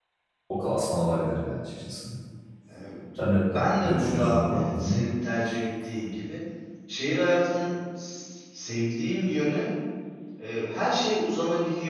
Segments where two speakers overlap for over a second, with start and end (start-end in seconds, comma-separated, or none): 3.4-5.0